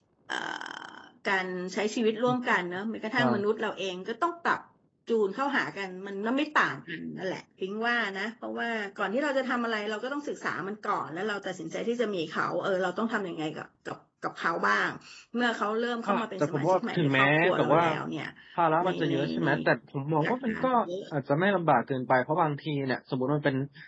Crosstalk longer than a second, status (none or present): present